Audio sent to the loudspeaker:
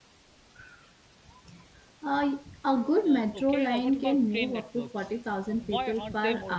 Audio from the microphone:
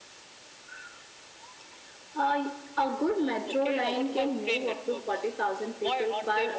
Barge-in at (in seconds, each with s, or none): none